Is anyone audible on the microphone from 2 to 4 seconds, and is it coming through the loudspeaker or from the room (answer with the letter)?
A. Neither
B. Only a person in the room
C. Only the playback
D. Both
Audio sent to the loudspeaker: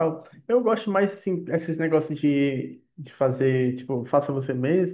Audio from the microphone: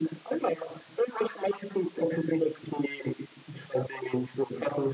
C